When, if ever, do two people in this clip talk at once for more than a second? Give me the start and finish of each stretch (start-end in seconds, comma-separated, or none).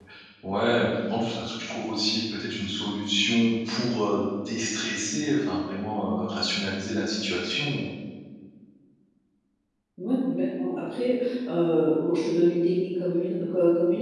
none